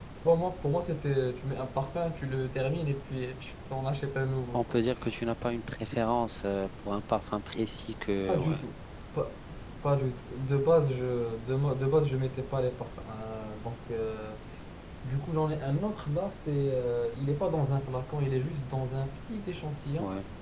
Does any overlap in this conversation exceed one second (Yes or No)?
No